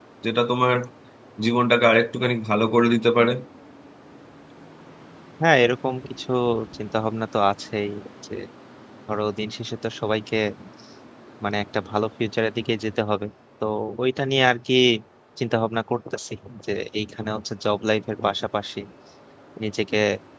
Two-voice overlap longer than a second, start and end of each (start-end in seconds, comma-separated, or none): none